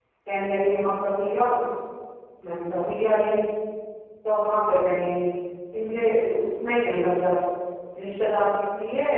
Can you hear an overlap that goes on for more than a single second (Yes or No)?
No